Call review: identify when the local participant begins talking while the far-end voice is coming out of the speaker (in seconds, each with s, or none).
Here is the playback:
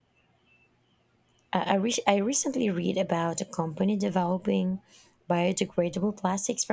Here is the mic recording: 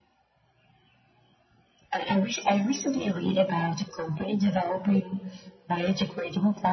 none